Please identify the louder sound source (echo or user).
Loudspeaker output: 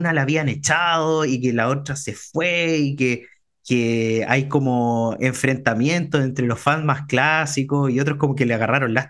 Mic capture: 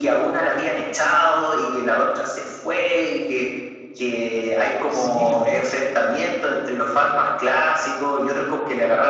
echo